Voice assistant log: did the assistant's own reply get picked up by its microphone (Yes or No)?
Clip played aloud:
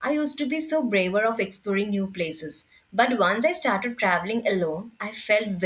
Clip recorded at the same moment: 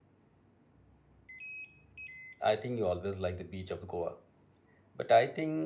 No